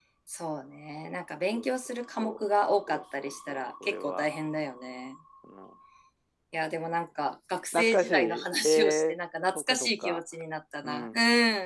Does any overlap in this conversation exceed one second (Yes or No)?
Yes